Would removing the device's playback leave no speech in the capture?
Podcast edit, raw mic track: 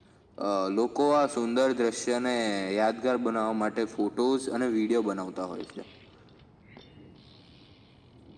Yes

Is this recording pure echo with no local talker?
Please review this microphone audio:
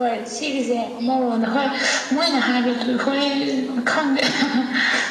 Yes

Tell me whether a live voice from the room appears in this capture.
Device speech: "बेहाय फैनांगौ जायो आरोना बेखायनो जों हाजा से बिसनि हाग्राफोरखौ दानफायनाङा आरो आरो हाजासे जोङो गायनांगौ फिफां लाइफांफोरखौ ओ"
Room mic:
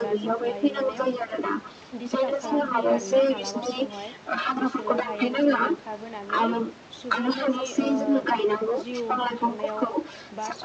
Yes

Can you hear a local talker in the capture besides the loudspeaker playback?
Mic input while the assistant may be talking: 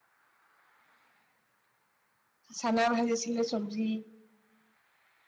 Yes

